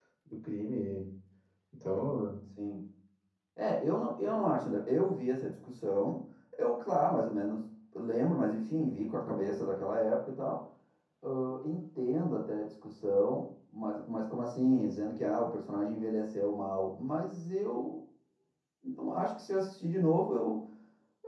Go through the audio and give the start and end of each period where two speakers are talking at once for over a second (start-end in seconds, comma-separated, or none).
none